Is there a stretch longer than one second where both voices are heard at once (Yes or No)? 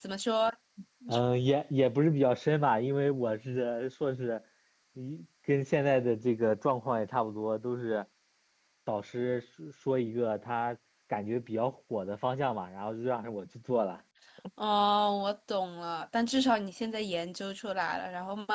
No